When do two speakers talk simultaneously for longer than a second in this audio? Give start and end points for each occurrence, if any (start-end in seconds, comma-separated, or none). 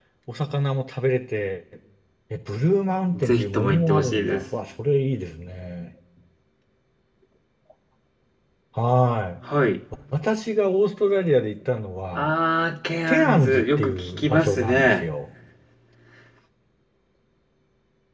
3.2-4.4, 13.1-15.0